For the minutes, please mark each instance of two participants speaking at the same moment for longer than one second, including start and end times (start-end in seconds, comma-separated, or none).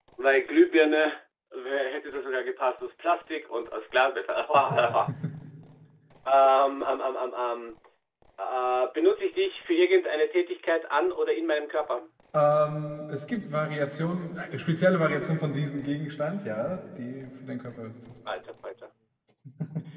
none